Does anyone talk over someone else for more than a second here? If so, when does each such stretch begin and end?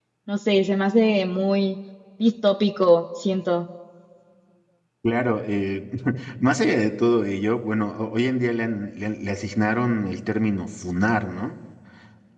none

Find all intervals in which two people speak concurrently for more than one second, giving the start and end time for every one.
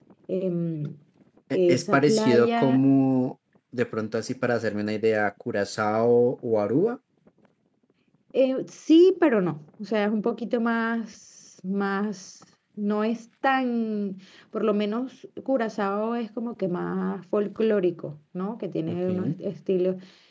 1.5-2.8

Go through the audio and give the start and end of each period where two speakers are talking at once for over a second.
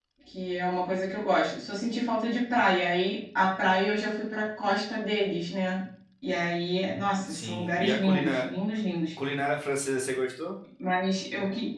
7.2-8.5

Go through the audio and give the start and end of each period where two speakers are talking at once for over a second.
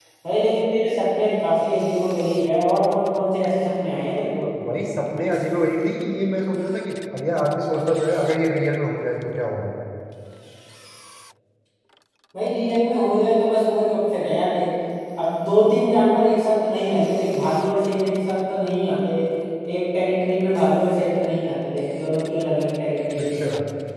none

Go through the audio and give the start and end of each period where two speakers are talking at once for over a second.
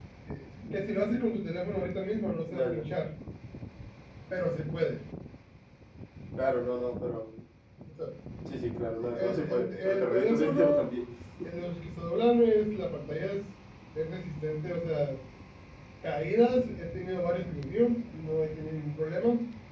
9.0-10.9

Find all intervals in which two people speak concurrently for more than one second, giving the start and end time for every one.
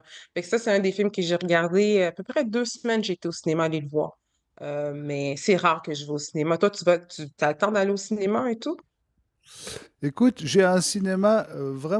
none

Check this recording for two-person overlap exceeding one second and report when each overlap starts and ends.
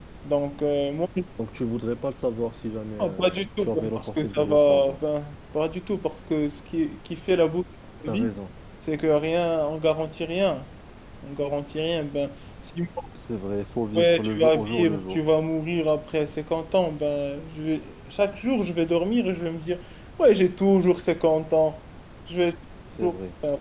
3.0-5.0, 13.9-15.2

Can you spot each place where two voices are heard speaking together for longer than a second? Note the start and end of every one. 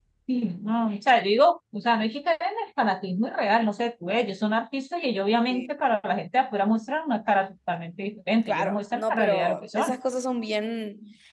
8.5-9.9

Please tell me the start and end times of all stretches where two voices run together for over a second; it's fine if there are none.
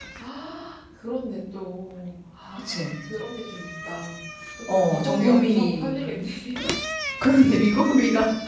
4.7-6.0

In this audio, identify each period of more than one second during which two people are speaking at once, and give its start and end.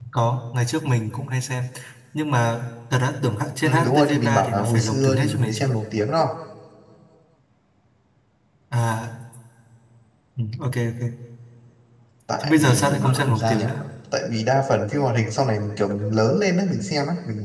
3.6-5.7, 12.4-13.7

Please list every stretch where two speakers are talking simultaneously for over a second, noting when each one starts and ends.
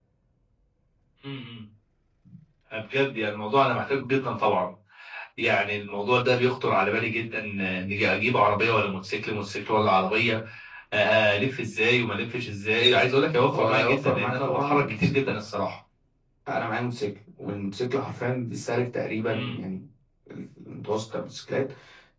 13.5-15.2

